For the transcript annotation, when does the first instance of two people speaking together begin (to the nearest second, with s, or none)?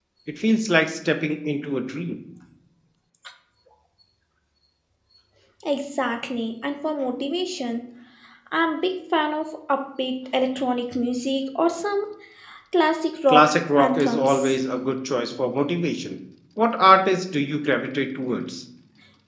13 s